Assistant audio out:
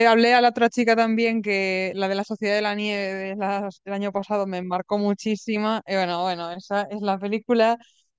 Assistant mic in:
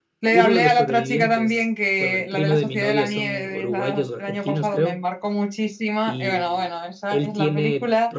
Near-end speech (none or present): present